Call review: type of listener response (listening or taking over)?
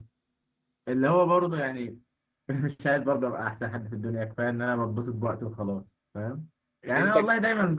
listening